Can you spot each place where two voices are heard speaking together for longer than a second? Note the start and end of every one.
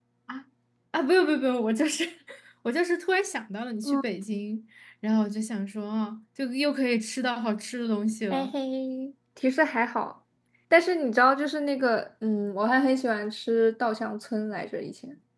none

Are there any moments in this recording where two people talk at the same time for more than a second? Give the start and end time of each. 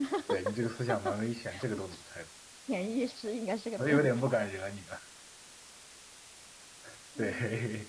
none

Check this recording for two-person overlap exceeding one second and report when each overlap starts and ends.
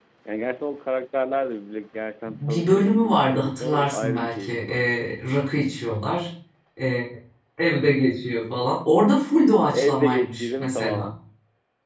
2.3-5.0, 9.7-11.1

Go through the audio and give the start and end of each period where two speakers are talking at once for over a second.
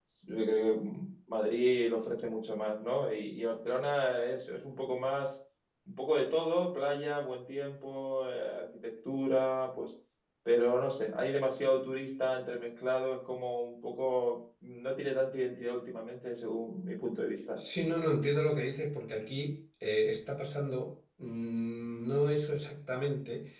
none

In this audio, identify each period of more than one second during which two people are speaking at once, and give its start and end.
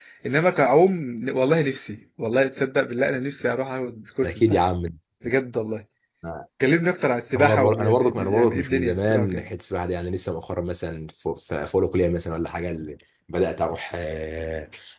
7.4-9.4

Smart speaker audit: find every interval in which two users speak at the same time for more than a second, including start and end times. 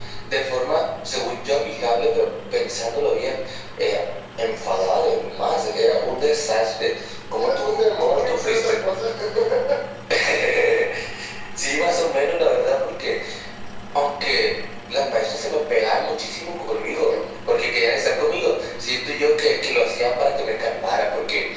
7.4-8.8

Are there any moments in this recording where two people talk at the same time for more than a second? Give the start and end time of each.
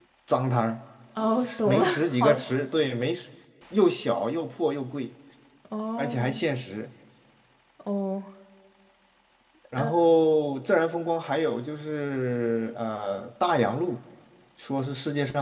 1.2-2.5

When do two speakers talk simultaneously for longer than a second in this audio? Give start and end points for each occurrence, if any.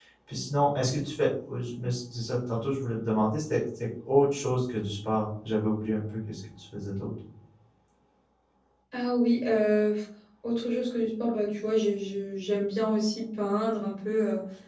none

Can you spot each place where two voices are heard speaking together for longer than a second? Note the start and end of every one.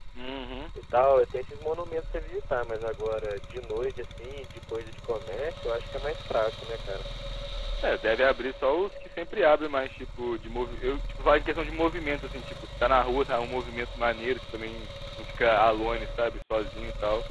none

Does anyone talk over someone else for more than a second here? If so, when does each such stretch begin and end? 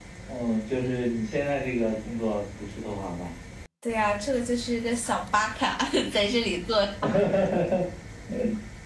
none

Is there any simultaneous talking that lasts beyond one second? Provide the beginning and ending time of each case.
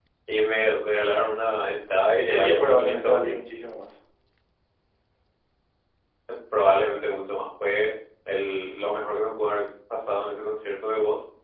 2.1-3.4

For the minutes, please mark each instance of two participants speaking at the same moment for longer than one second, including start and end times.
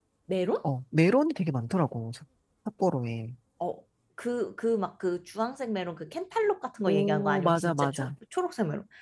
6.9-8.1

